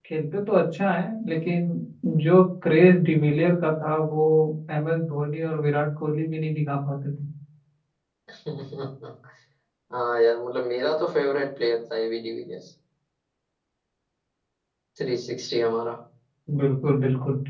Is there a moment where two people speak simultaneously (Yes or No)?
No